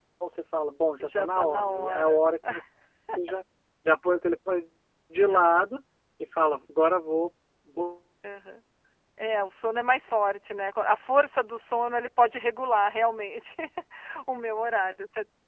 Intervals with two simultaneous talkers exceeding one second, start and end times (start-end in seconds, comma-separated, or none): 1.0-2.2